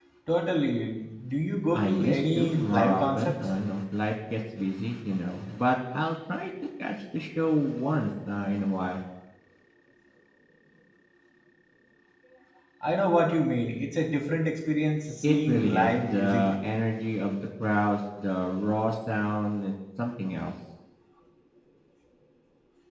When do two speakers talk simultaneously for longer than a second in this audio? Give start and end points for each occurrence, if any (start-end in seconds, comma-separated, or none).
1.7-3.4, 15.2-16.4